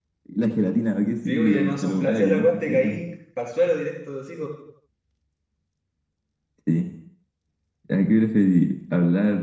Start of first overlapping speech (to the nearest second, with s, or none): 1 s